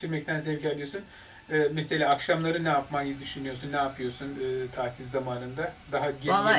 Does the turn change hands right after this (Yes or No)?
Yes